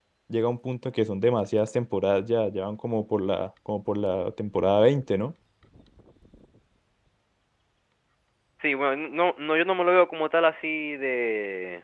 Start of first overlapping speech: none

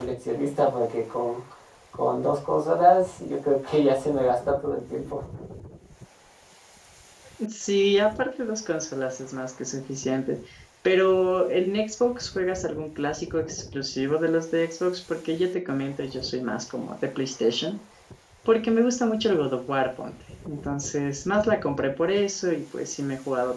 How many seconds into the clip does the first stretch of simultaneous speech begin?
none

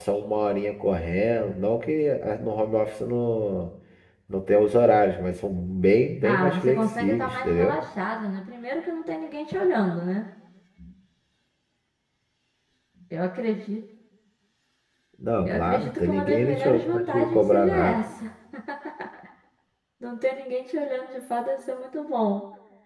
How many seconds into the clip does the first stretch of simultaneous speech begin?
6.2 s

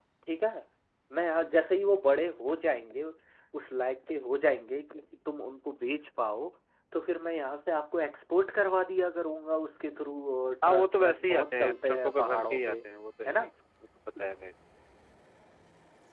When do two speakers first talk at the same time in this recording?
10.6 s

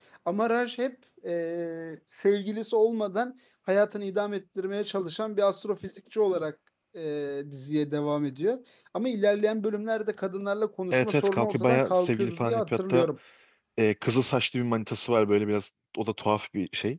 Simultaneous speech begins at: 10.9 s

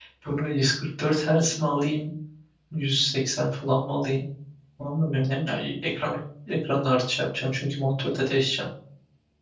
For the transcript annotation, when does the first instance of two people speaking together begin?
none

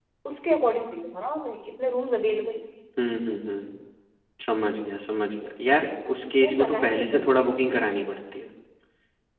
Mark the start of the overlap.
6.4 s

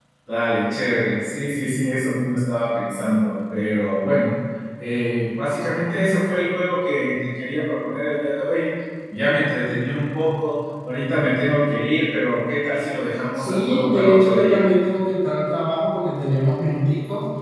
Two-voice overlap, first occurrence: 13.3 s

